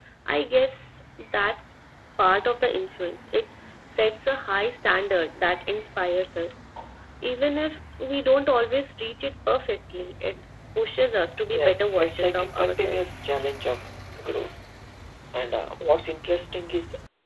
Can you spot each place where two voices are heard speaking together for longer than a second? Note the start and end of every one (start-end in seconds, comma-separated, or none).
11.5-13.0